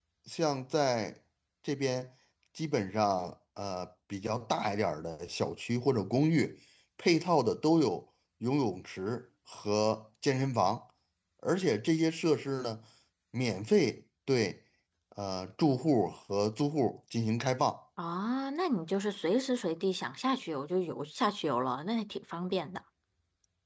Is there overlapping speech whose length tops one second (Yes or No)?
No